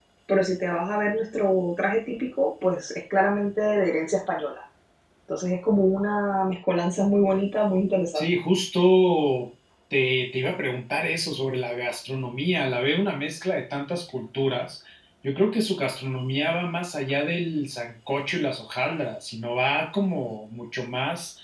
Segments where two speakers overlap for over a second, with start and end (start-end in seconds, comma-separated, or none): none